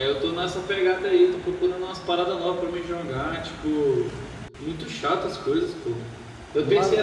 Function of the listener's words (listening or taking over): listening